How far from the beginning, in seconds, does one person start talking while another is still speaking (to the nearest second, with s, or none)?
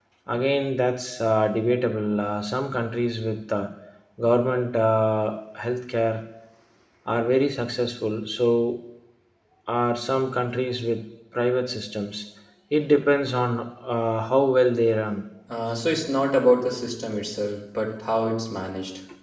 none